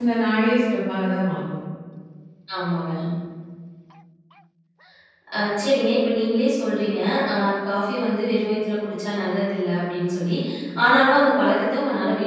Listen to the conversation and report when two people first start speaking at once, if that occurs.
none

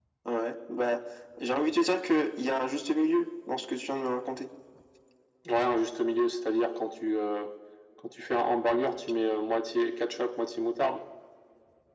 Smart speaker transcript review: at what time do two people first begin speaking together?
none

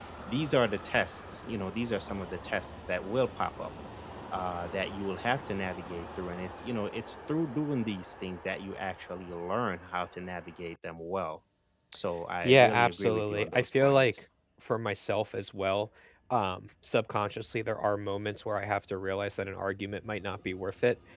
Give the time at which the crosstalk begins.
12.4 s

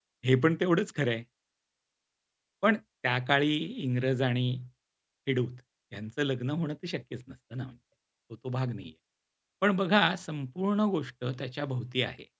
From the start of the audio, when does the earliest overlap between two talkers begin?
none

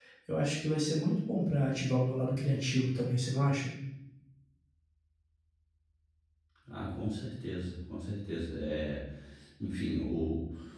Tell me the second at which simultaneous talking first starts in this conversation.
none

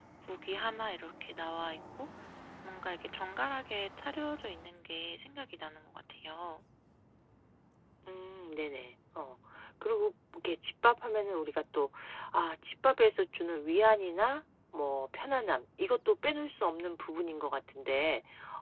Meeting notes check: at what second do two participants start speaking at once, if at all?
none

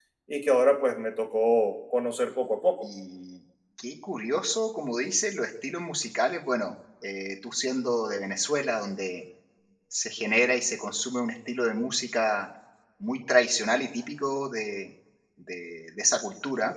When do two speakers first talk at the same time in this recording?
none

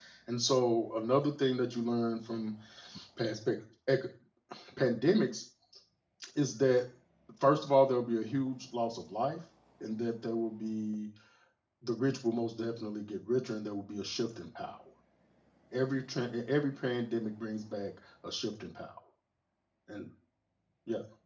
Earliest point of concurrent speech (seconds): none

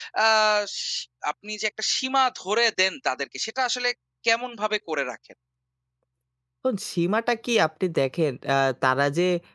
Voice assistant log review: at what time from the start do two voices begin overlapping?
none

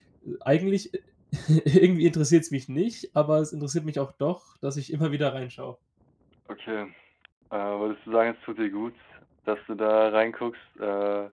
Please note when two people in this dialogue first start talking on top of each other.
none

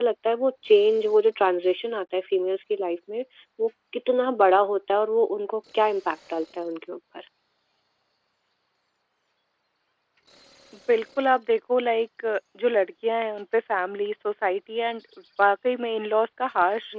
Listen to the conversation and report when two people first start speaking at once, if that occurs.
none

